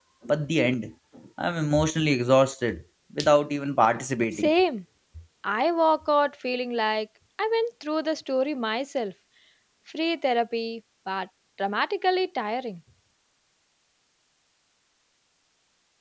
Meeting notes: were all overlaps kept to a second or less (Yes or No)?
Yes